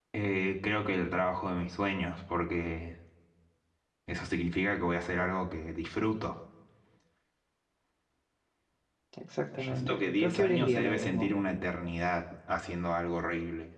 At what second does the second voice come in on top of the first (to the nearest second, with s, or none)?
10 s